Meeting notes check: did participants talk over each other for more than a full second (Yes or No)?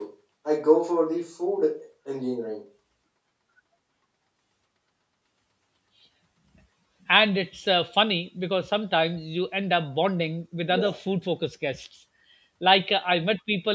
No